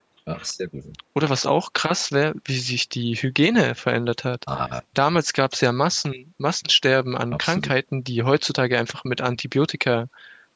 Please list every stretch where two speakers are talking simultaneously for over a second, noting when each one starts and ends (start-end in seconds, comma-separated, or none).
none